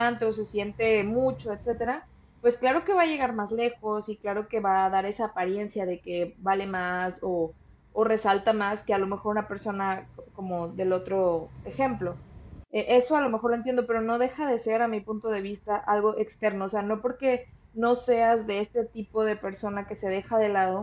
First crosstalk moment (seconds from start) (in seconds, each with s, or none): none